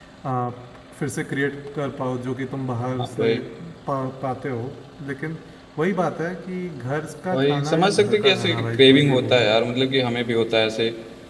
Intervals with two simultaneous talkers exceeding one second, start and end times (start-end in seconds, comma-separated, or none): 7.3-9.5